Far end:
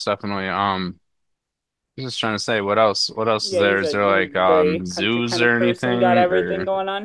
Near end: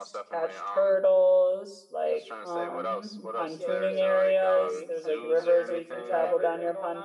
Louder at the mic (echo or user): user